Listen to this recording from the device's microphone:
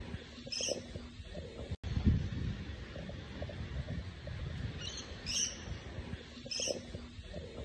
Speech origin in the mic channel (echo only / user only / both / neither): neither